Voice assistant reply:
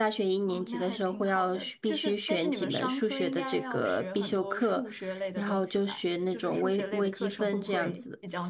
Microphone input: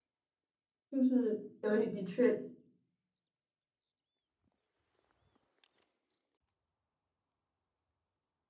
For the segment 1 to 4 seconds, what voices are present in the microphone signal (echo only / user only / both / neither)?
user only